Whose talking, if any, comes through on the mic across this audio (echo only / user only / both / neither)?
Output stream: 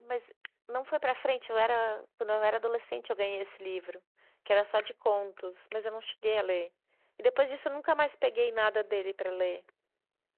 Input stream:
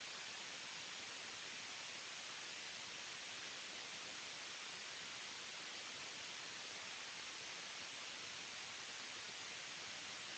neither